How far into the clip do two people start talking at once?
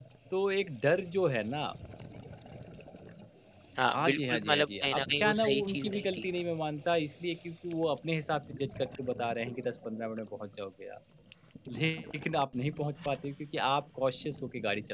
3.9 s

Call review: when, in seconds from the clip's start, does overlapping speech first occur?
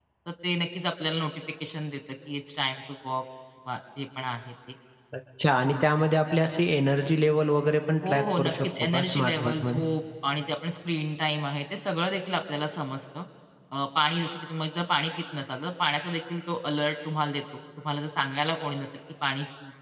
8.0 s

